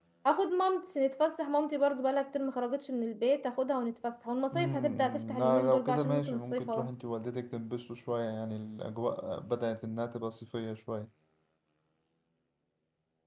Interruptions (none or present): present